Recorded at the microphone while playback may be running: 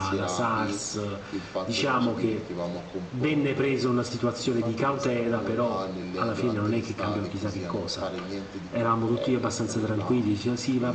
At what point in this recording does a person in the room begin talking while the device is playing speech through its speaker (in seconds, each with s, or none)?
none